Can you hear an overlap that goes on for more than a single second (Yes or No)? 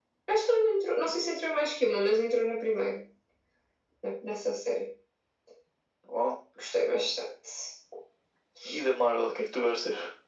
No